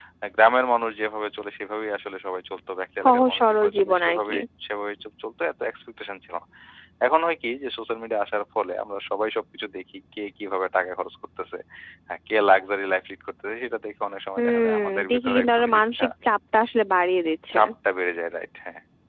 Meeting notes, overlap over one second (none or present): present